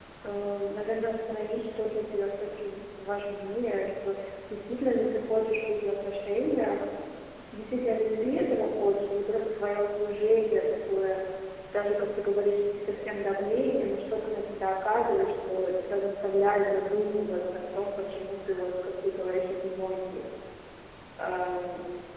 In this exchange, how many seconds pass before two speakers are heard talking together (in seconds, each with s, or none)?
none